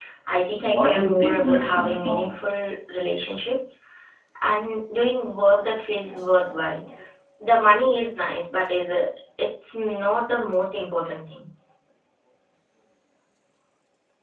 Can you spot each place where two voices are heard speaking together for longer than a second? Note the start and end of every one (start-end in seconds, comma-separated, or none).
0.6-2.4